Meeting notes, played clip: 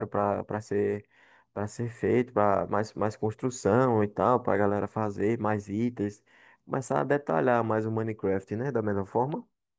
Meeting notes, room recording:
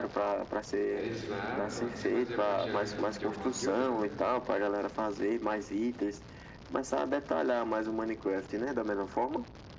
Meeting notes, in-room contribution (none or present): present